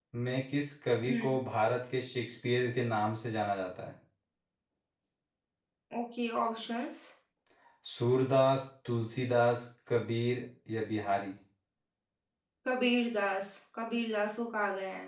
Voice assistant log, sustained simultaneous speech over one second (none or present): none